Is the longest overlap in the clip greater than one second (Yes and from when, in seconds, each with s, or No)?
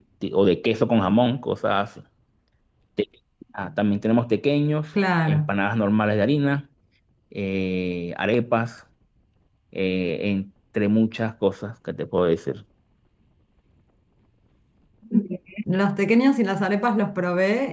No